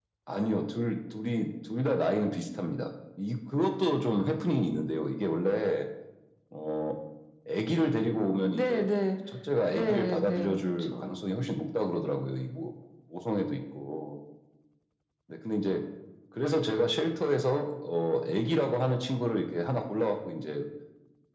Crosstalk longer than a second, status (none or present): present